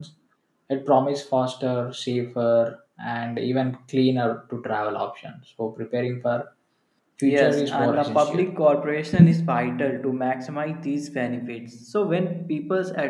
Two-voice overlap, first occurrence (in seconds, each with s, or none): 7.2 s